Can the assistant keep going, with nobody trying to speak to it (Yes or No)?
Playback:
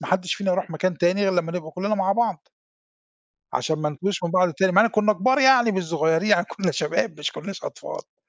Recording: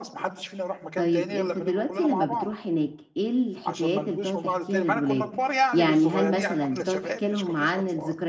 No